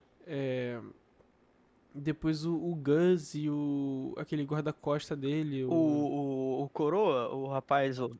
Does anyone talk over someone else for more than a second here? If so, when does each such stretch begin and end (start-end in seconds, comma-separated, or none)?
none